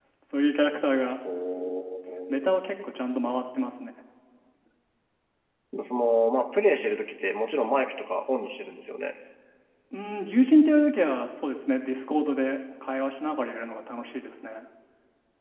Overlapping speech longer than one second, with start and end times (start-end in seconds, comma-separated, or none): none